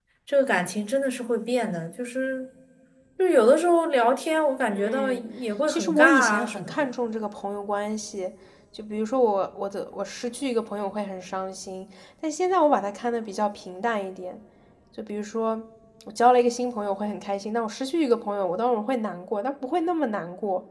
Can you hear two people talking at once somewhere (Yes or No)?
Yes